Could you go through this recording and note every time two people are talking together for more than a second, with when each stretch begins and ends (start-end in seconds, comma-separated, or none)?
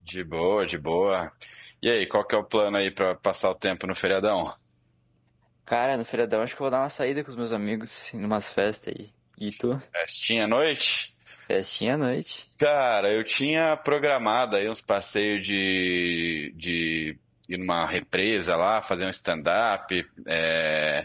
none